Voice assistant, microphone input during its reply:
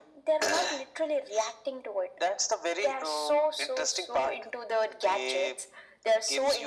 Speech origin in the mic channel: echo only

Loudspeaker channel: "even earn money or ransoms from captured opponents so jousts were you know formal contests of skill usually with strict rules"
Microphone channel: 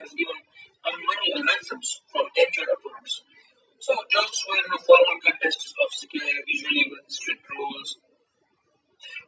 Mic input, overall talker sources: echo only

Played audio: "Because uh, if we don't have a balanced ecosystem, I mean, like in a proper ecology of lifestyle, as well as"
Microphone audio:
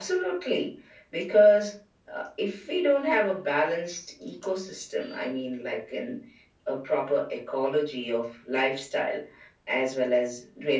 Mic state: echo only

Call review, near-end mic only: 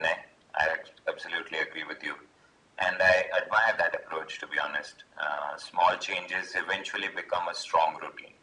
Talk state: echo only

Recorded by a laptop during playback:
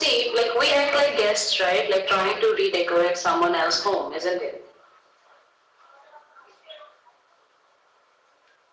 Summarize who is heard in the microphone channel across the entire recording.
echo only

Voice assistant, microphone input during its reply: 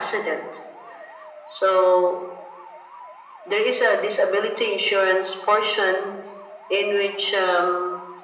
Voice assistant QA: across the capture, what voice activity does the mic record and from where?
echo only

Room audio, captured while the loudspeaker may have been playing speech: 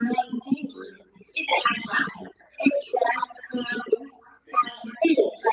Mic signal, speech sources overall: echo only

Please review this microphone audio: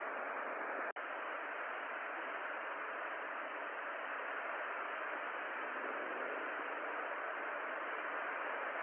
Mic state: neither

